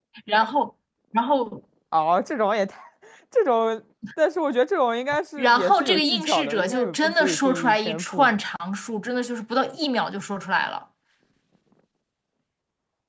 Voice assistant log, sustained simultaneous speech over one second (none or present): present